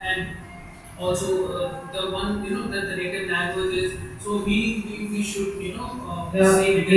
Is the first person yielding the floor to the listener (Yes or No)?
Yes